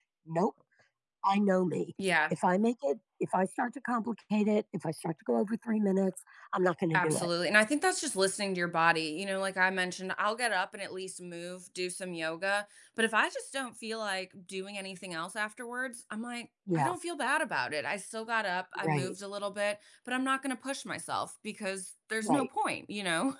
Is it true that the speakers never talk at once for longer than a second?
Yes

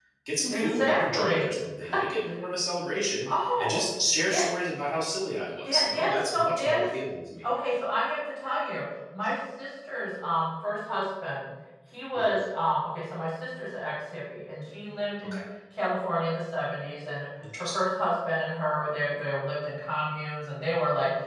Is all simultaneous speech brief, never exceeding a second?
No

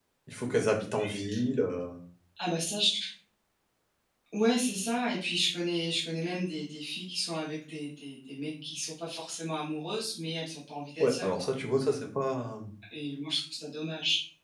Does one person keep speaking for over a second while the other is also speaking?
No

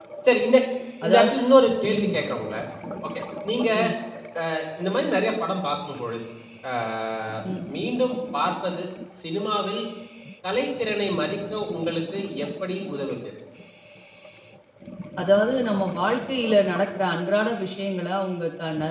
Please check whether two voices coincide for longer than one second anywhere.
No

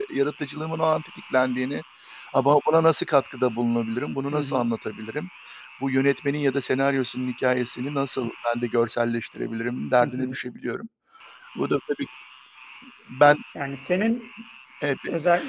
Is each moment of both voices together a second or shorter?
Yes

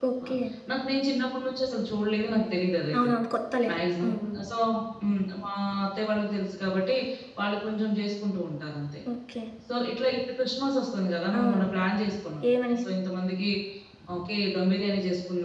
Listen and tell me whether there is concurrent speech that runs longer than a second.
No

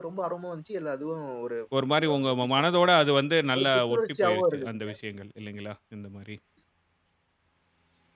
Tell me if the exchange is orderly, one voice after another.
No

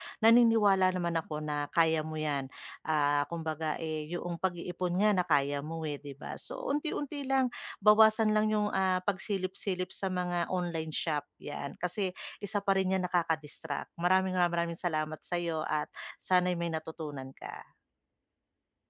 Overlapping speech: No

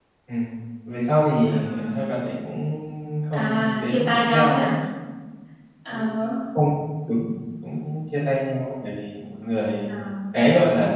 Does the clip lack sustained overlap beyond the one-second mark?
No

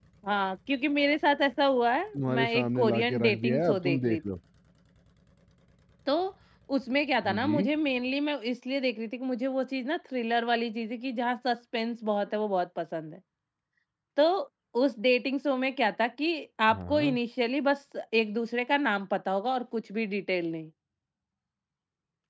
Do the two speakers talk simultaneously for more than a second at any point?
Yes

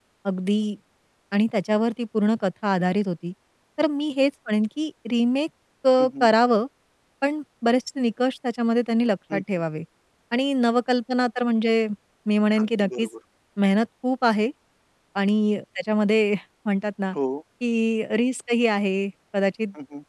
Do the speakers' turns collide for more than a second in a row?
No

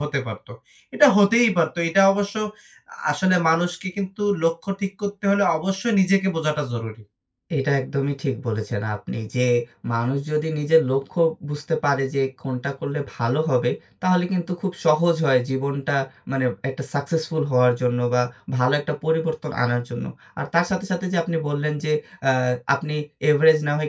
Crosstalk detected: No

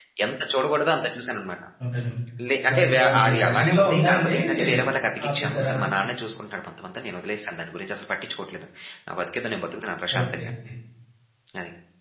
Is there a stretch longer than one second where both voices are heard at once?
Yes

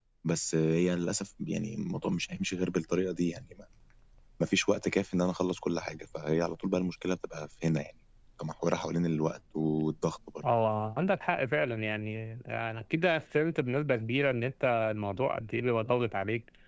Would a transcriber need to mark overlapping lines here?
No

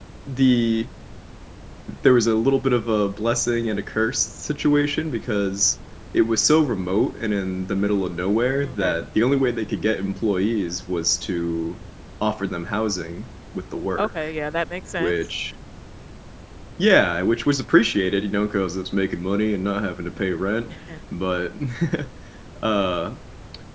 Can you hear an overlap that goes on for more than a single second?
No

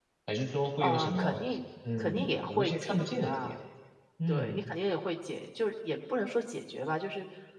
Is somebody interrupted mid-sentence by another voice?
Yes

